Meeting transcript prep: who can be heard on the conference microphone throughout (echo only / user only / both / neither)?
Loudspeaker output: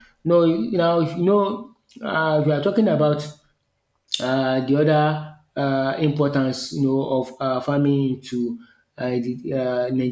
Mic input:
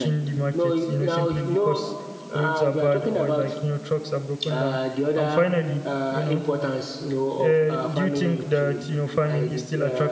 both